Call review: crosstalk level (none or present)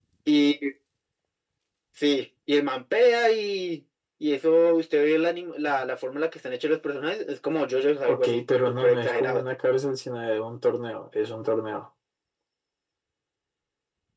present